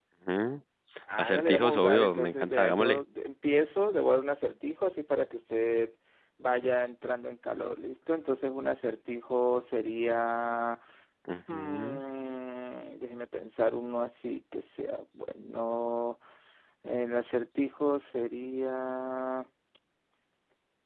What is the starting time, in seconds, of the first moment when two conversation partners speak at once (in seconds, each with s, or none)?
1.2 s